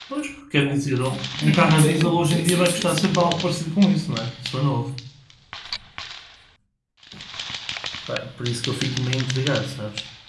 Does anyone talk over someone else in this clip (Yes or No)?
Yes